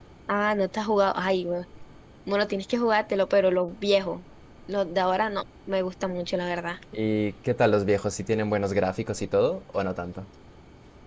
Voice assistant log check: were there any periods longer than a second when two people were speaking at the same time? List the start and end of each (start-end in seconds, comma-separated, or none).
none